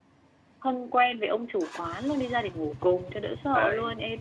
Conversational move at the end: taking over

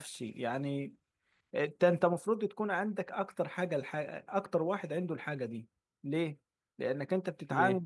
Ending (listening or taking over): listening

